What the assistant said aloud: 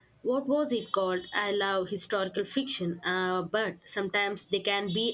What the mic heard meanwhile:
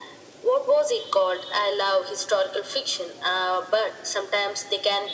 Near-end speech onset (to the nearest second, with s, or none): none